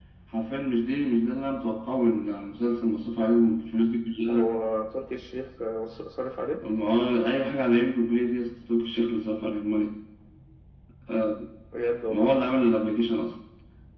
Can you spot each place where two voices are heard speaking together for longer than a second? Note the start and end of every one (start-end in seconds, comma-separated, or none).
none